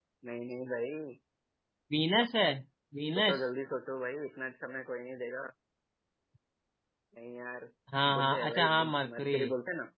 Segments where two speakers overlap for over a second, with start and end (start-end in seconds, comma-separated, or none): 8.1-9.4